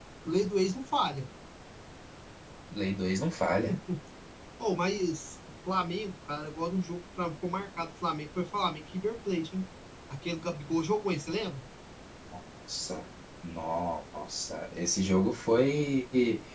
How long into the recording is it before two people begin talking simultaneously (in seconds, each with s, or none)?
none